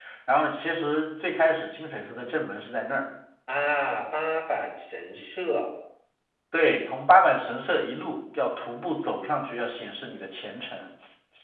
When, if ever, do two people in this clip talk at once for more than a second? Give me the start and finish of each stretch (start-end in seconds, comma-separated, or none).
none